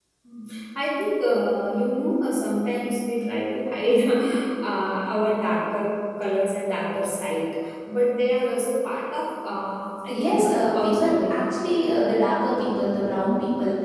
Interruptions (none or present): present